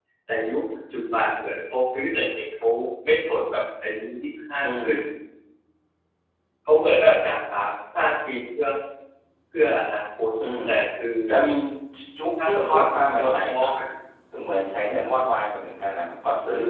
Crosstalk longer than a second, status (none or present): present